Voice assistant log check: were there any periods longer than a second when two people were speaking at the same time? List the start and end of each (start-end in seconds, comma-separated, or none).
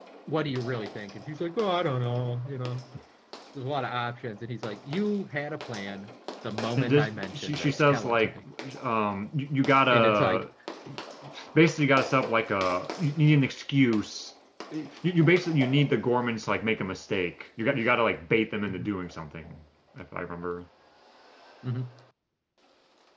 6.8-8.4